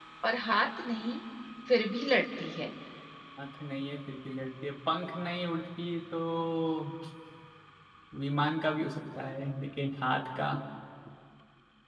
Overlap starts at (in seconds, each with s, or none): none